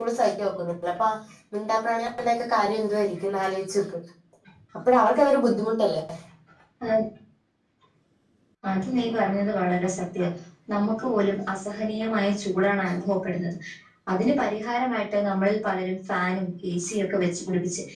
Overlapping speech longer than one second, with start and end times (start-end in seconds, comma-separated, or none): none